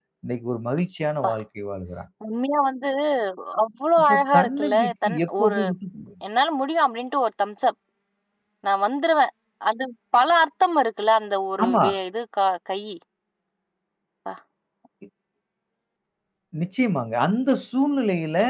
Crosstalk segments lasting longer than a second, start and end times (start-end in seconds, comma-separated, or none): 4.0-5.6